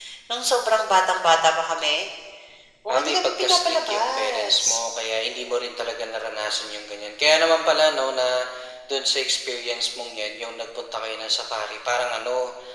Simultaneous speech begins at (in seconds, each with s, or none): 2.9 s